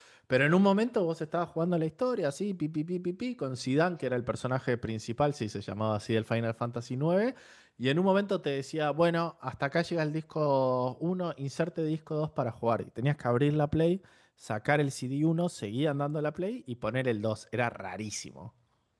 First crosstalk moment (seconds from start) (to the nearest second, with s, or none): none